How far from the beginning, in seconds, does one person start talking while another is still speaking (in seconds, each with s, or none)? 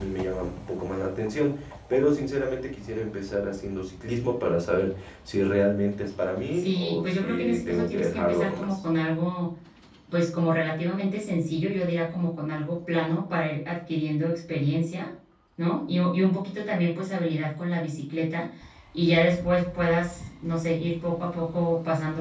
6.5 s